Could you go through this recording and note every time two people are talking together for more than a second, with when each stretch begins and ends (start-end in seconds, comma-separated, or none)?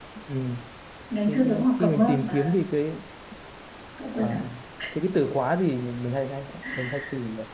1.3-2.5